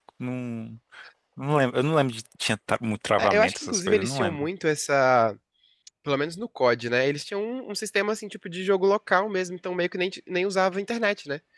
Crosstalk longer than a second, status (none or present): present